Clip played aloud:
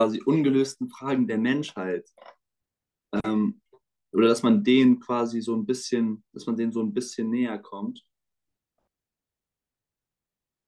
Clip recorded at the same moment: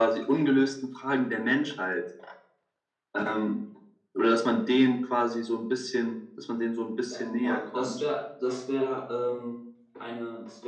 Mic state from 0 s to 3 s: echo only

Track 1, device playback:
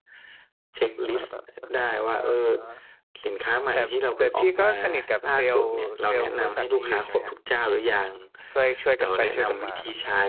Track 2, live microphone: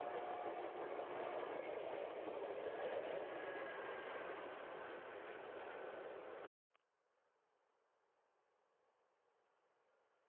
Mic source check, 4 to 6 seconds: neither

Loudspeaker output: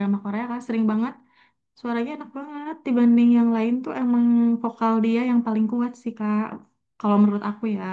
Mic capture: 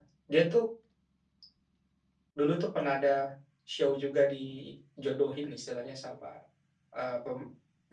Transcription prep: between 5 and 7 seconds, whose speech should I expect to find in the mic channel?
user only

